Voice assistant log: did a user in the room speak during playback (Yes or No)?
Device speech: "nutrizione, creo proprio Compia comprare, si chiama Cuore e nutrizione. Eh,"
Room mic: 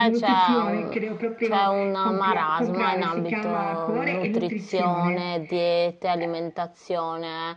Yes